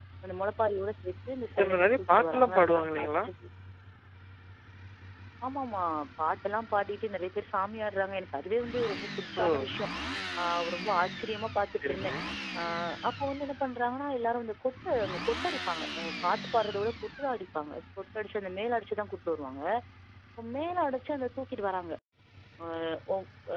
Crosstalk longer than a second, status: present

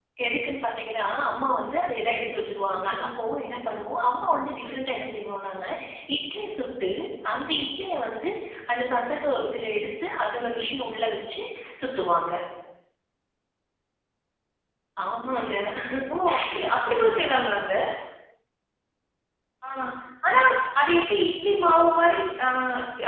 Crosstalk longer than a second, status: none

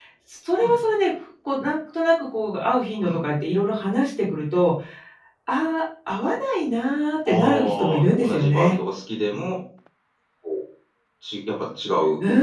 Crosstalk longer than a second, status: present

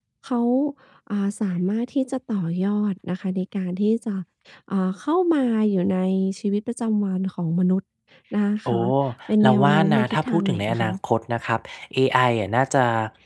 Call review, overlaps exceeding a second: present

